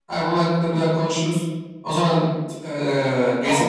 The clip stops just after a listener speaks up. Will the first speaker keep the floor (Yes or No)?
No